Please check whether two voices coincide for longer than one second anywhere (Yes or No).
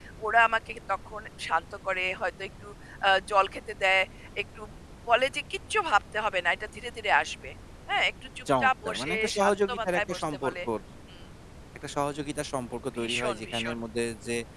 Yes